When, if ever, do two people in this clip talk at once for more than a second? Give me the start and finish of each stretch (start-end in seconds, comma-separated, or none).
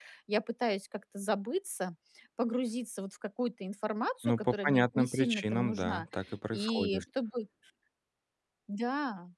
4.2-6.1